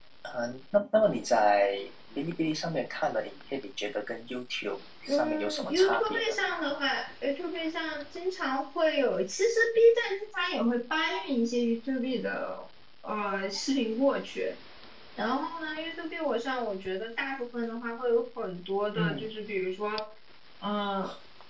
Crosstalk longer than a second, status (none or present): present